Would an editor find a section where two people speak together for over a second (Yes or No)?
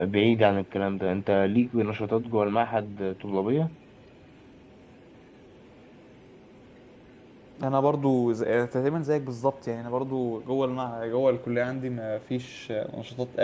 No